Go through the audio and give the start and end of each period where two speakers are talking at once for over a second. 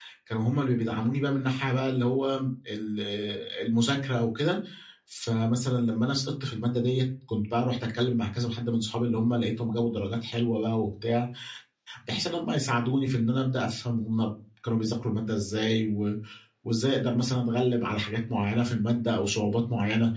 none

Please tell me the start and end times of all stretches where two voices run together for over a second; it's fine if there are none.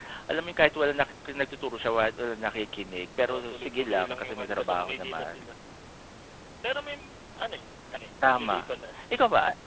3.2-5.5

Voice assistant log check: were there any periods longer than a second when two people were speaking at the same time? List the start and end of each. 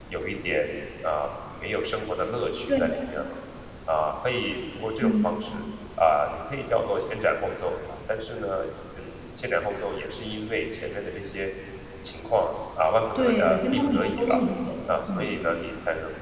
13.2-14.4

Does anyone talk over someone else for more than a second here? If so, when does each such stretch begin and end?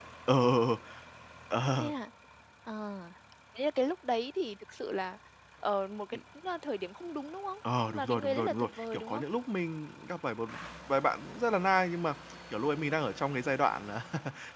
7.9-9.2

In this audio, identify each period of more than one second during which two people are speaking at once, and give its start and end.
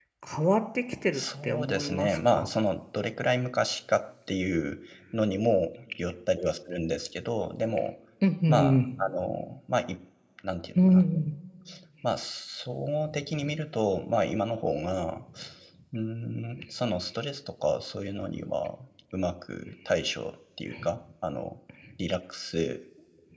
1.1-2.5

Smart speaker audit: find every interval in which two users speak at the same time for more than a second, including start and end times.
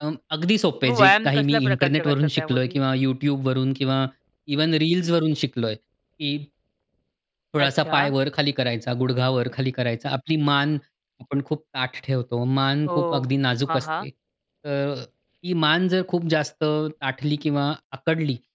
0.8-2.8

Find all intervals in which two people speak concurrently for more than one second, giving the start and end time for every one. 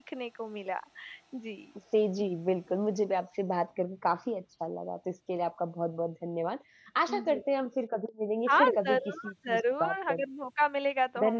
8.5-10.2

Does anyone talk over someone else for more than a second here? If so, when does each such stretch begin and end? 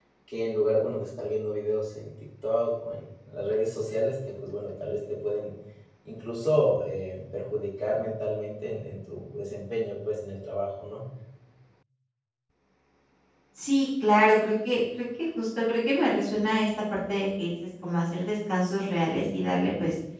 none

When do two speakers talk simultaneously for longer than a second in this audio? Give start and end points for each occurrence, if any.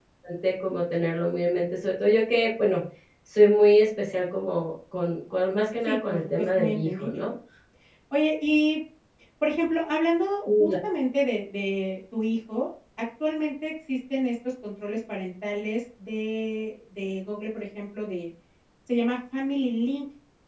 5.9-7.2

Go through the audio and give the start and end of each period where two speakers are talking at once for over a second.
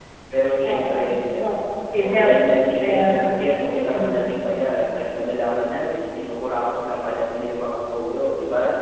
none

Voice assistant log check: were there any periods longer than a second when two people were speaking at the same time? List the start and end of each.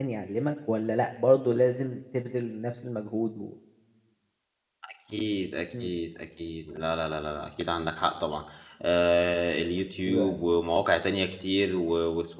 none

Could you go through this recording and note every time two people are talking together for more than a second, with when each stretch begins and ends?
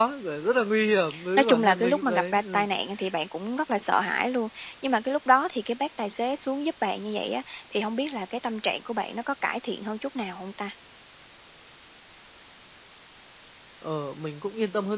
1.4-2.6

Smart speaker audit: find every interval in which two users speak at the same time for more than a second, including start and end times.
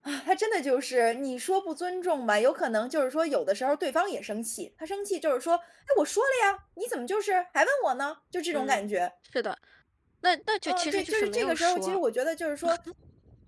10.7-12.0

